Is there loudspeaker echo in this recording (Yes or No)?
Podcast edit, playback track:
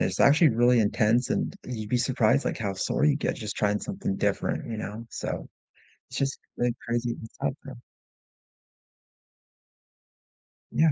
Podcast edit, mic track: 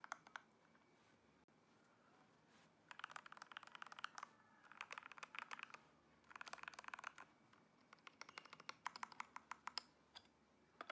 No